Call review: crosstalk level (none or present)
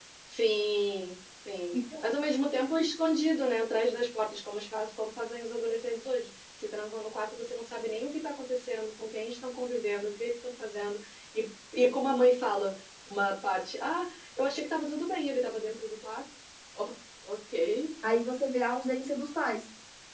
none